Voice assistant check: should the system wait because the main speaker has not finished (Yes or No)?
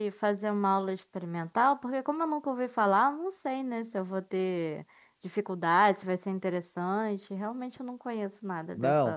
No